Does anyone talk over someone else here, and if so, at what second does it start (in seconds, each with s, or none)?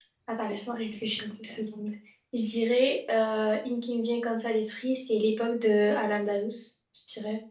none